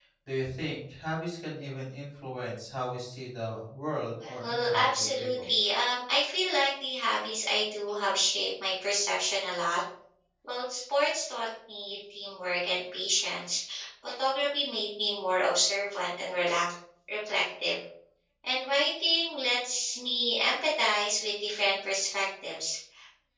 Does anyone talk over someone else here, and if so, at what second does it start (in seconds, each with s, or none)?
4.2 s